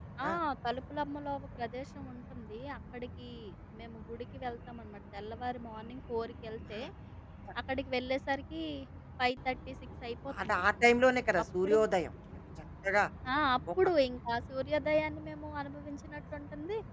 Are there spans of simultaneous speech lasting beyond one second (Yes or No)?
No